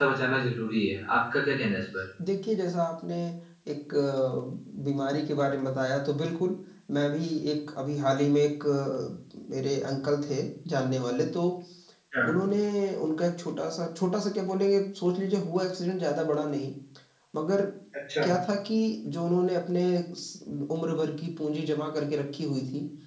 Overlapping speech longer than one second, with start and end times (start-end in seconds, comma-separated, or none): none